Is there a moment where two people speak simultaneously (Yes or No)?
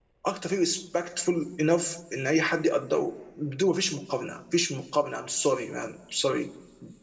No